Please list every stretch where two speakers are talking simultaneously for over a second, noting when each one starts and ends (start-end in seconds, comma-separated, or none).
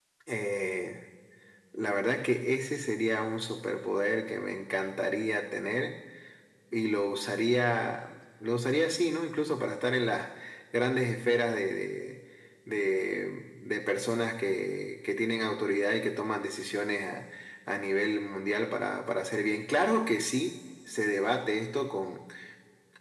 none